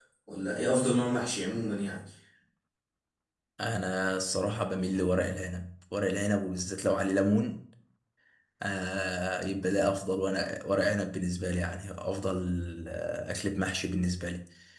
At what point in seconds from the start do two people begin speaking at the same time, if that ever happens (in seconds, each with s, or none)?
none